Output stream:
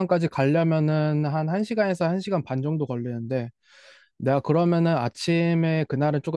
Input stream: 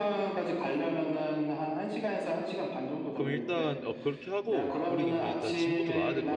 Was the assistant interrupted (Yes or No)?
Yes